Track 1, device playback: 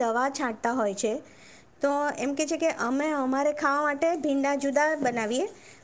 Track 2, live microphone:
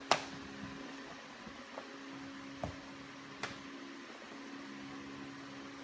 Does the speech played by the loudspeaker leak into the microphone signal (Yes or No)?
No